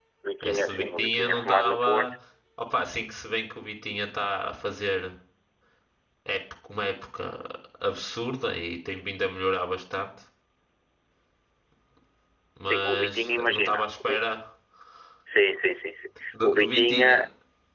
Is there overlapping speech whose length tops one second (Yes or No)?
Yes